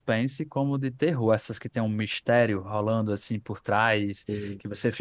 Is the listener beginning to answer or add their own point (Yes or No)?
No